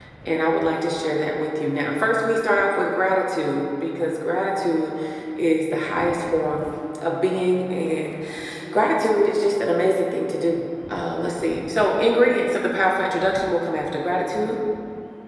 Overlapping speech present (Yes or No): No